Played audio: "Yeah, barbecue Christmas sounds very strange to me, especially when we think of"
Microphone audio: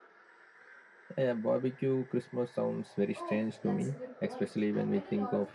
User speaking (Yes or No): Yes